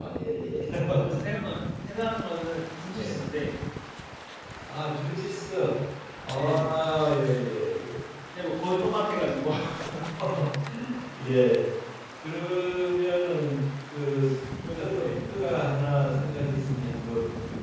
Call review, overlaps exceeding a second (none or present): none